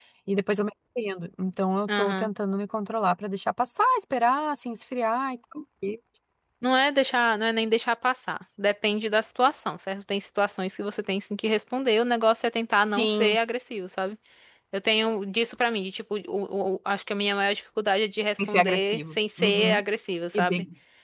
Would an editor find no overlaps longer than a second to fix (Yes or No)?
No